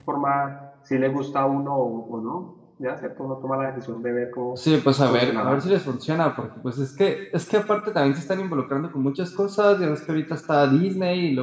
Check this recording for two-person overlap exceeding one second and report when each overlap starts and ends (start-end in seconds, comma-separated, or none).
none